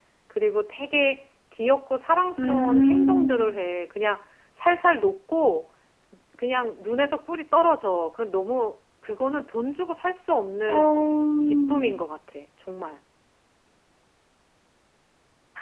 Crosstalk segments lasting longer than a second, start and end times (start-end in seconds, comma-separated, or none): 2.4-3.6